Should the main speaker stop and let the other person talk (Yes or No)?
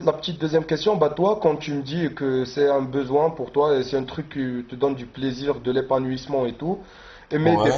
No